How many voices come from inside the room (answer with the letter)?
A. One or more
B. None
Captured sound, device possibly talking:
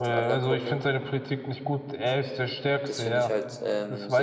A